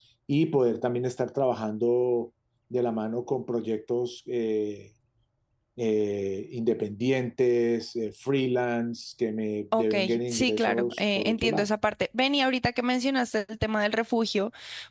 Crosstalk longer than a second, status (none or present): present